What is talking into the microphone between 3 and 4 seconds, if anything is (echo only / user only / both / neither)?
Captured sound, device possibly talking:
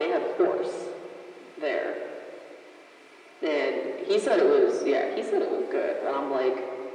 echo only